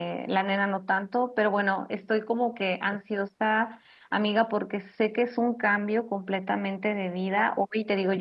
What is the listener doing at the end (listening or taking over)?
listening